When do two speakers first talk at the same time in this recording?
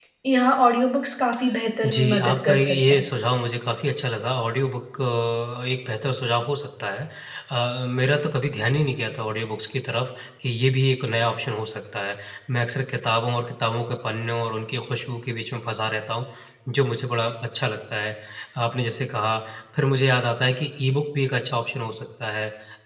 2 s

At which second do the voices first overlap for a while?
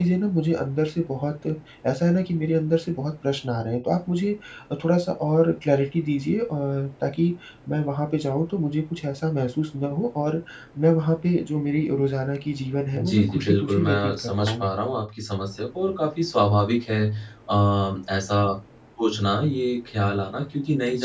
13 s

